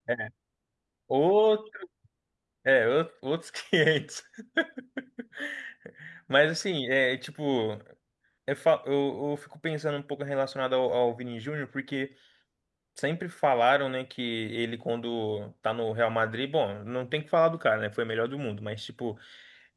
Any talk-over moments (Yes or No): No